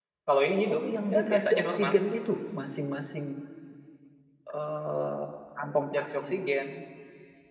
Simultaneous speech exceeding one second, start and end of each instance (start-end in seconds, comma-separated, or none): 0.7-1.9